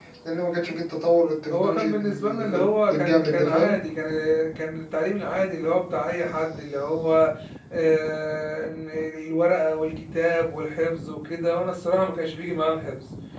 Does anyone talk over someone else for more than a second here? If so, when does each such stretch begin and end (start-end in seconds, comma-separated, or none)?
1.5-3.7